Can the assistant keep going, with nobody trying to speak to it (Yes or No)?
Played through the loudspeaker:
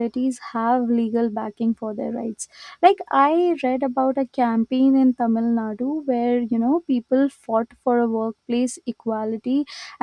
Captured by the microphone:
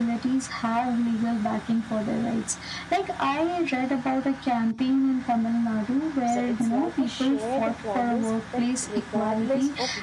No